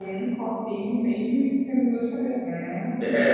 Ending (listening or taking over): taking over